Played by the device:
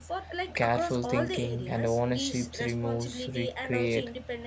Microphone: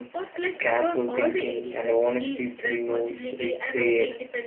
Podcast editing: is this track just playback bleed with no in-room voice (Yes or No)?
Yes